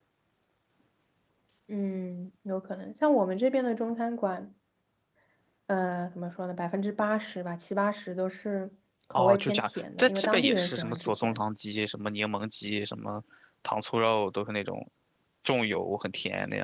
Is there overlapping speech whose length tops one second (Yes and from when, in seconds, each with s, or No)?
Yes, from 9.2 s